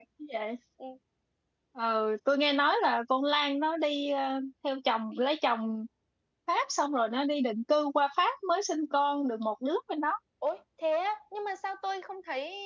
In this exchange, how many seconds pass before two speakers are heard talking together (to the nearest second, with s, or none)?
none